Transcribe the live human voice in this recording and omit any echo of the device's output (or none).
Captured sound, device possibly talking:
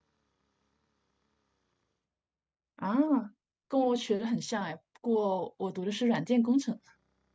啊，跟我学的很像哎，不过我读的是软件工程。